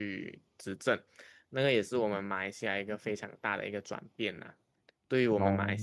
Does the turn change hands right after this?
No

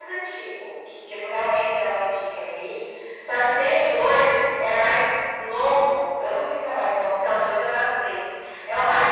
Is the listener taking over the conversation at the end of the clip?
Yes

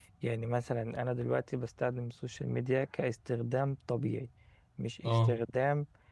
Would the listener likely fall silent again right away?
Yes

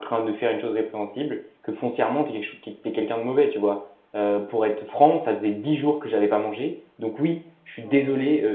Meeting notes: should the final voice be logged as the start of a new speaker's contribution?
No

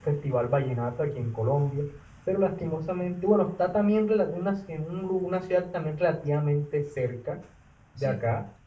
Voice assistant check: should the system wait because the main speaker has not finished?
Yes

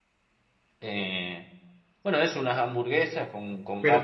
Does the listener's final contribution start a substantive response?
Yes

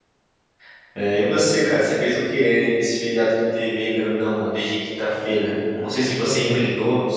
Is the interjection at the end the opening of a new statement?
No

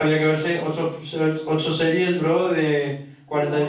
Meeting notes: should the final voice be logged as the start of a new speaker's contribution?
Yes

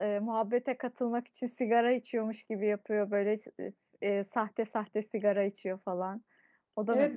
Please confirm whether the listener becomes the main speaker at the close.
Yes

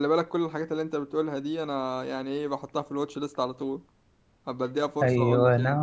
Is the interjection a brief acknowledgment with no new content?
No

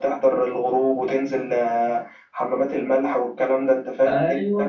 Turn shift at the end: Yes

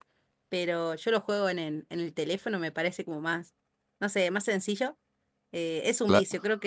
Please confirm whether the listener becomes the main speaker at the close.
No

